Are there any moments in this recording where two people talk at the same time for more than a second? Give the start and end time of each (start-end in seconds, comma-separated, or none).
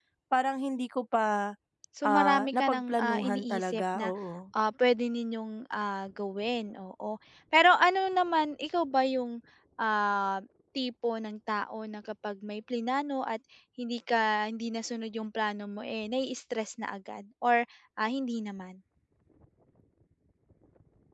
2.0-4.1